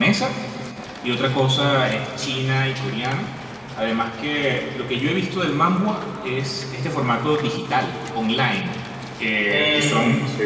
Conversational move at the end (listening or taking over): listening